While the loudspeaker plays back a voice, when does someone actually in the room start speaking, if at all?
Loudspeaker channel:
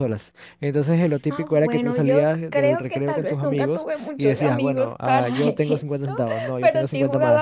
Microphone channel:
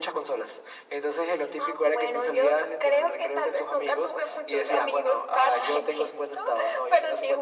none

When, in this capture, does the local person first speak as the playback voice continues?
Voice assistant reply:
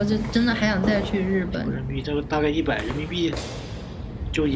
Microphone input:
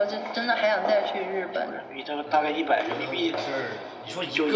2.2 s

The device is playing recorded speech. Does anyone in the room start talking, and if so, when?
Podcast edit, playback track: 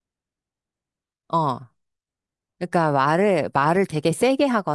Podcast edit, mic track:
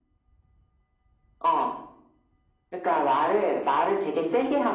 none

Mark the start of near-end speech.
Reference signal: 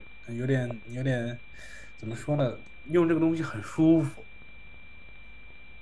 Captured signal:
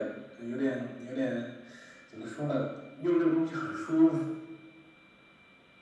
none

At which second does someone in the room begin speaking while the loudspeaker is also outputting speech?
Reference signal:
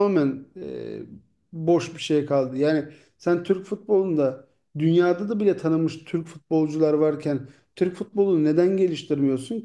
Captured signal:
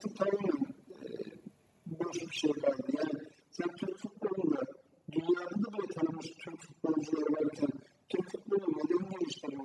none

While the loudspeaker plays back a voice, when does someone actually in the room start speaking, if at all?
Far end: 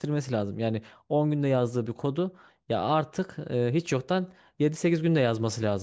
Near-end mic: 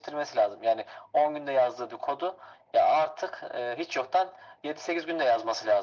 none

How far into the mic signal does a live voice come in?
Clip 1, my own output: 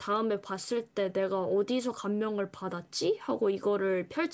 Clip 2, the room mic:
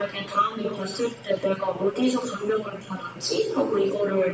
none

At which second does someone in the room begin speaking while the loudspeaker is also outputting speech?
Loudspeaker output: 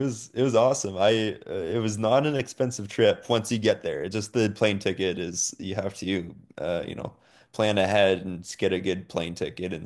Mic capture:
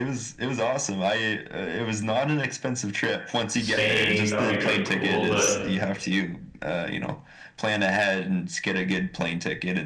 3.6 s

